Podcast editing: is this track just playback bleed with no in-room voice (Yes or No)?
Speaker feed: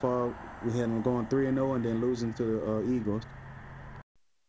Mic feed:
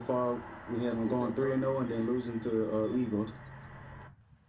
No